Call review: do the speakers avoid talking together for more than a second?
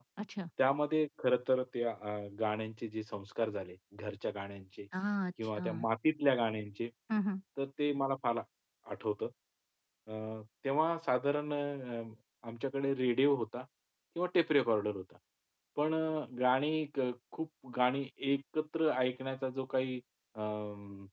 Yes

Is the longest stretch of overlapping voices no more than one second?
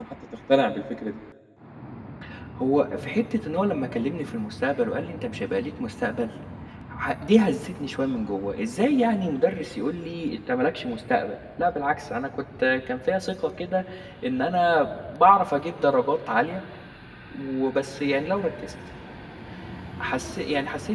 Yes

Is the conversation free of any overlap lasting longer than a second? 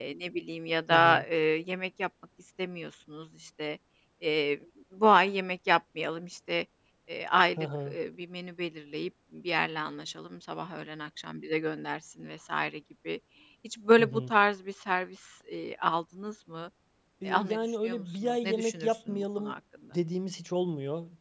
No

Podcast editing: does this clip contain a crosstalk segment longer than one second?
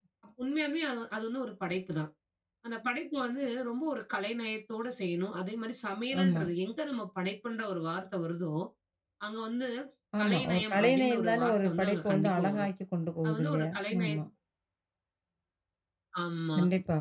Yes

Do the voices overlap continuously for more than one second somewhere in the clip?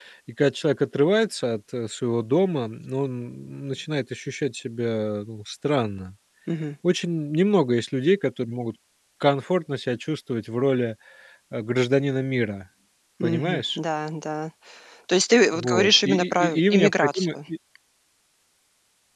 Yes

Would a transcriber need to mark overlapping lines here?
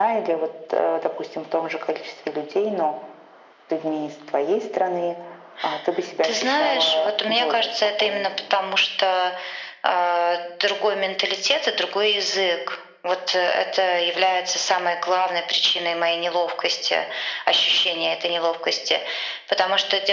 Yes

